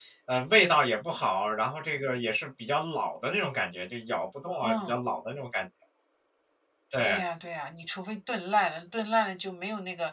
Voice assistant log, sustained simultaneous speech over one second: none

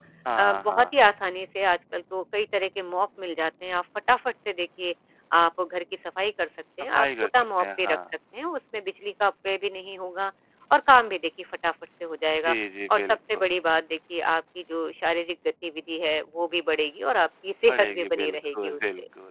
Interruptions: present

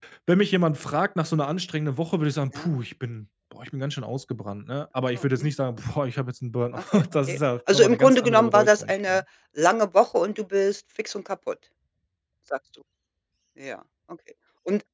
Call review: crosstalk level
present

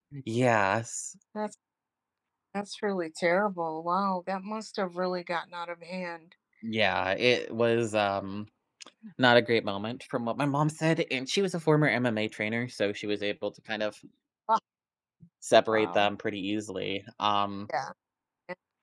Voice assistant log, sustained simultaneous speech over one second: none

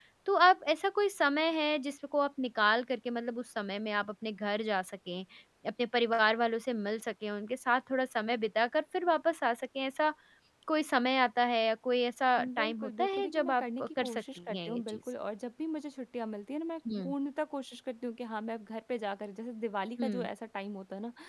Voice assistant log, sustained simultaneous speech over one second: present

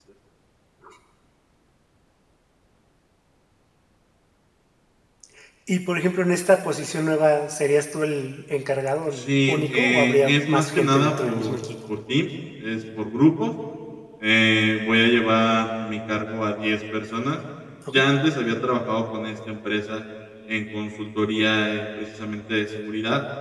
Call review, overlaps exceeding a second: present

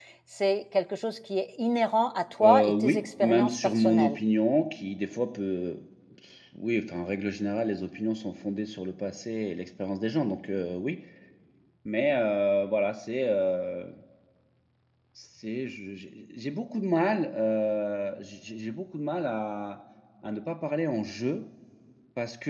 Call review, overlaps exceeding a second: present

